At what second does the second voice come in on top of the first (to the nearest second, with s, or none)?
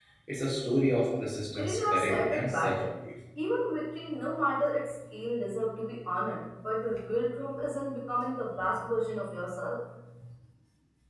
2 s